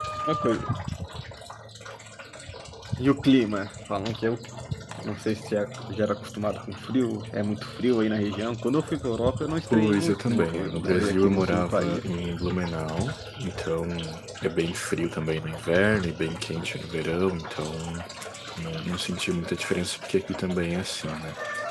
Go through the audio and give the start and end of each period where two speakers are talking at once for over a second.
9.7-12.0

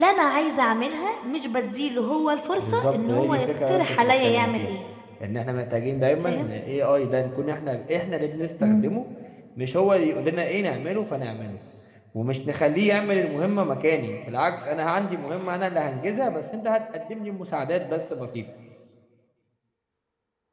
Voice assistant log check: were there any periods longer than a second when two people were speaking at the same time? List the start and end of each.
2.6-4.7

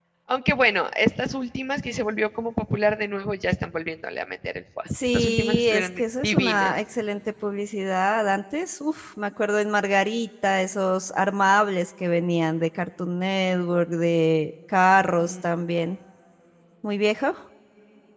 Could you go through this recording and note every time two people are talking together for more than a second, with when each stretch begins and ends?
4.8-6.8

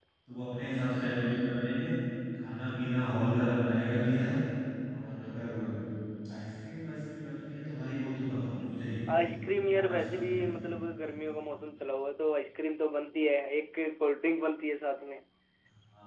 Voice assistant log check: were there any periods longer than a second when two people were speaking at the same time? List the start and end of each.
9.2-10.6

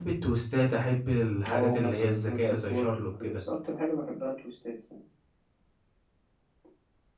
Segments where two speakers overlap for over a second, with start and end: 1.5-3.4

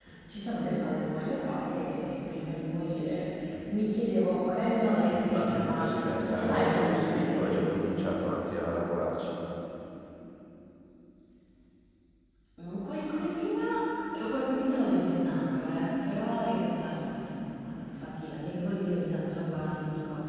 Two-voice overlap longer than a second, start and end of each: 5.3-7.6

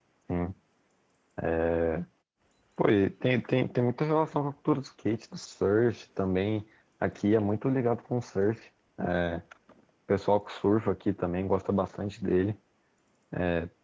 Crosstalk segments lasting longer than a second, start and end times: none

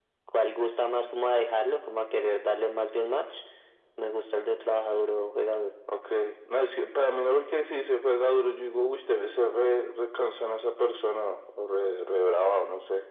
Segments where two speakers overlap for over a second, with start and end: none

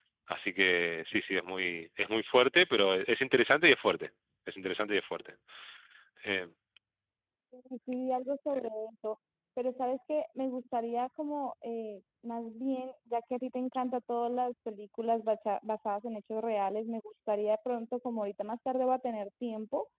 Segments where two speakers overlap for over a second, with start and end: none

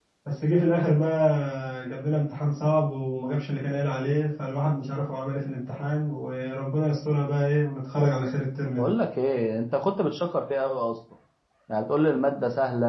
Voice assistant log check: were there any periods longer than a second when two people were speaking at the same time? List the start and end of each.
none

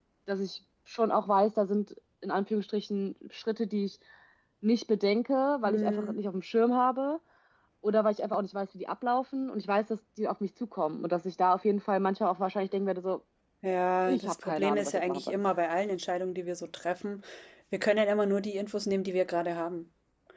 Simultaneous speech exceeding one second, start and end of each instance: 14.1-15.4

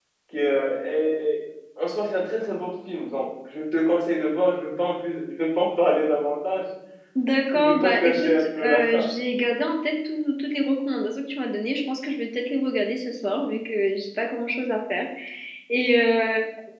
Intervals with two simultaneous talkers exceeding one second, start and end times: 7.5-9.1

